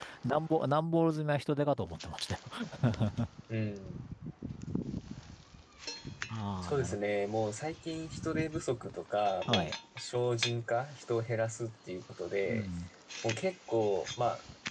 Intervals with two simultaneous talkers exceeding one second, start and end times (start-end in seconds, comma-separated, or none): none